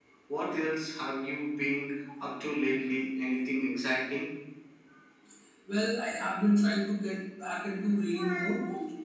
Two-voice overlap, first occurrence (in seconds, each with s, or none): none